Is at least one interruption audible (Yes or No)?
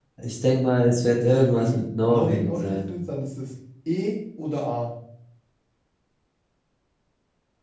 Yes